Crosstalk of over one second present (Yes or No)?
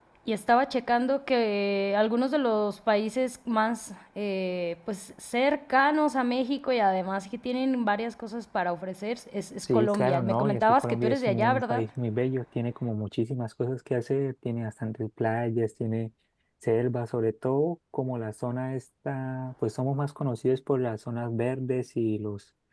Yes